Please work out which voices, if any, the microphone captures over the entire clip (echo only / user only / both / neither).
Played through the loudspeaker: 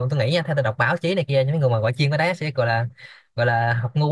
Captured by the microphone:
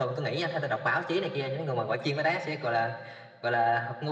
echo only